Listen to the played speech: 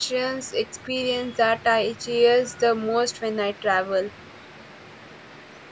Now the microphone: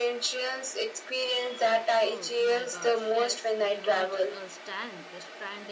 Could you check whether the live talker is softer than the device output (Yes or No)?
Yes